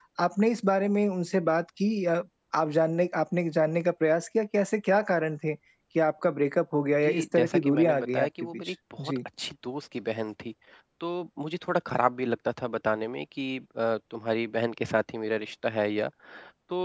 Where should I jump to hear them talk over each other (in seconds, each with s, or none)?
7.0 s